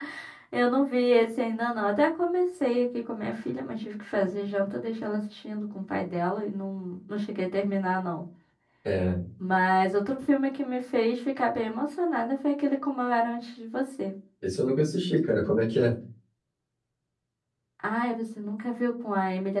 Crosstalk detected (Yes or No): No